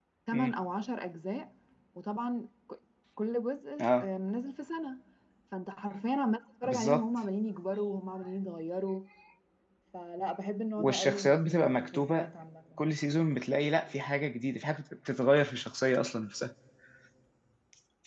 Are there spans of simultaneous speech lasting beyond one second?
Yes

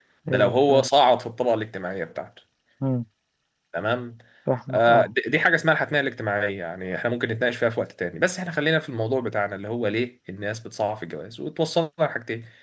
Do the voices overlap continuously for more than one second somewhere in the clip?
No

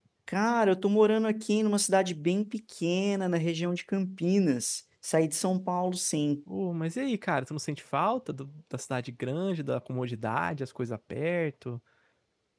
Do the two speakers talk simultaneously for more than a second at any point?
No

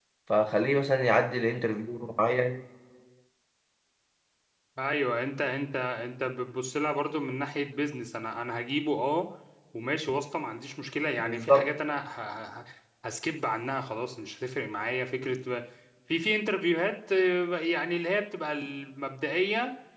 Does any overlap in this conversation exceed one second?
No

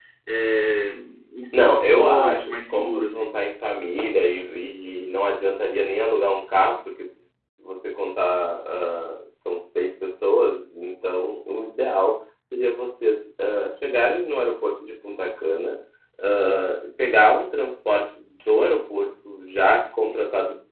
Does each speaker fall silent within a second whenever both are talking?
No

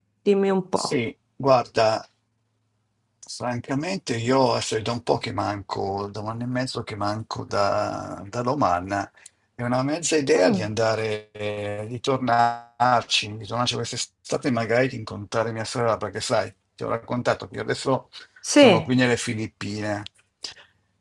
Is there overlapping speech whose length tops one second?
No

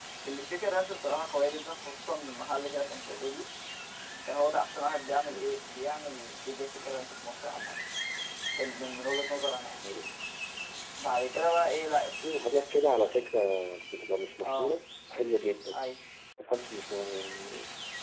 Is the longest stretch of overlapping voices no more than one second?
Yes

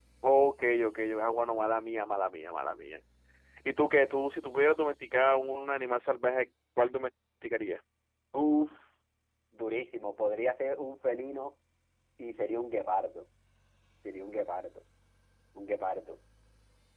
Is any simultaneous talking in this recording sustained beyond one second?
No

